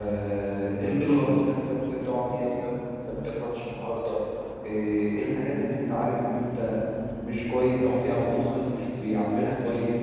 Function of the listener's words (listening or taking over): listening